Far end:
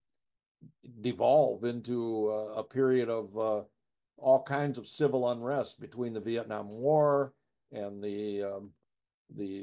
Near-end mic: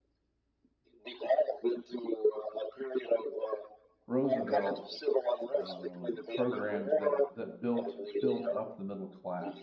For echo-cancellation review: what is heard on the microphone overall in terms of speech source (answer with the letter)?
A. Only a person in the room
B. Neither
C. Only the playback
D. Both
D